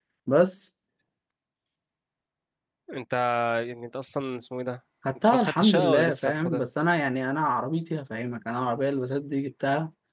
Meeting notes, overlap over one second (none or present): present